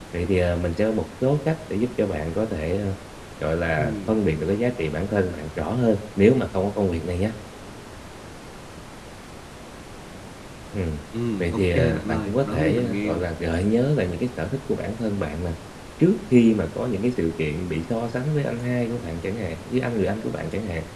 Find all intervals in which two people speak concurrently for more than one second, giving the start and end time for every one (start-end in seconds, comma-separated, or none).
11.4-13.2